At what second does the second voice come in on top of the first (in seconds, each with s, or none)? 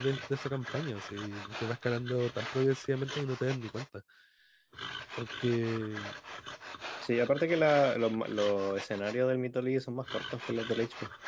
none